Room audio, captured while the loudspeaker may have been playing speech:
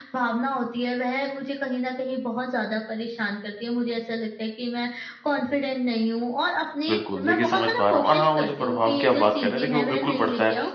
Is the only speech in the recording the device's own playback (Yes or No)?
No